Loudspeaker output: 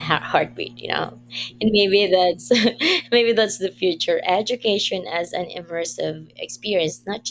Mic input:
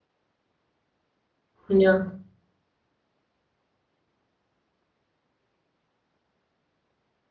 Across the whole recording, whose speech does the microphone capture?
user only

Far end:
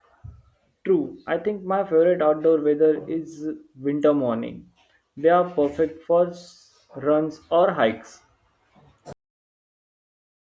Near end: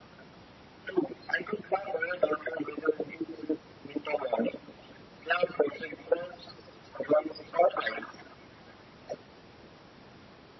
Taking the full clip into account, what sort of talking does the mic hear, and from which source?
echo only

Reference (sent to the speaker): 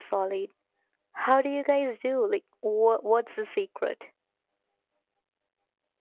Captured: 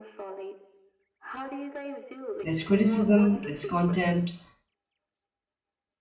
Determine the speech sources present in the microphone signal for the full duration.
both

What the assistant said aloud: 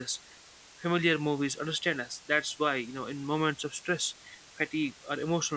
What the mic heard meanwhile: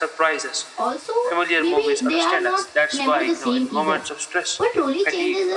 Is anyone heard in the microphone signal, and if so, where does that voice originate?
both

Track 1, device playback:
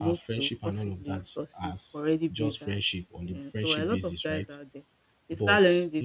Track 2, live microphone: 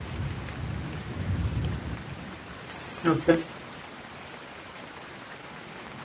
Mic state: user only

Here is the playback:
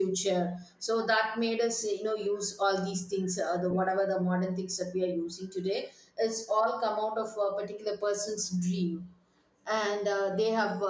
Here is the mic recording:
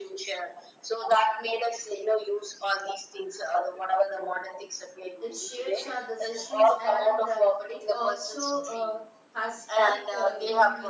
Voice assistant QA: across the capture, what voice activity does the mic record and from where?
both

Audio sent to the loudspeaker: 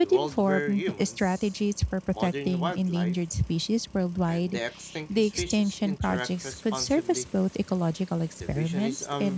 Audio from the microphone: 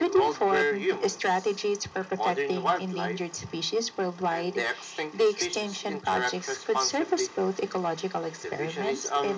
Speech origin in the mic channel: echo only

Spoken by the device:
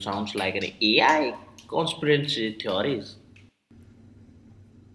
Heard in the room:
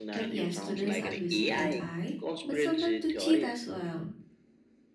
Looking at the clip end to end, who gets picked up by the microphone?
both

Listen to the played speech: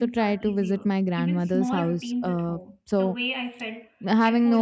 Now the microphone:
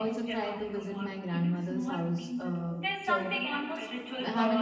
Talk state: both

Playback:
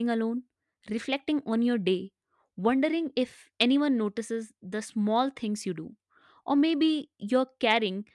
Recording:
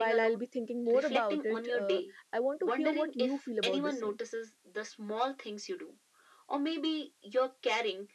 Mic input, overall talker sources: both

